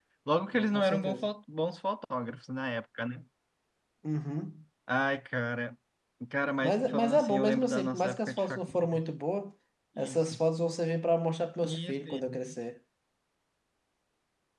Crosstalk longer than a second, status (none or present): present